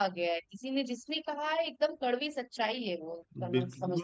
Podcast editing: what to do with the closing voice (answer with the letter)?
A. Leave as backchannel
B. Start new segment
B